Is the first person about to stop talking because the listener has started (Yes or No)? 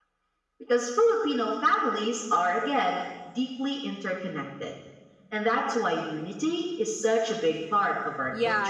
Yes